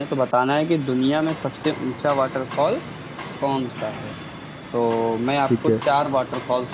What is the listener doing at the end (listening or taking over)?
listening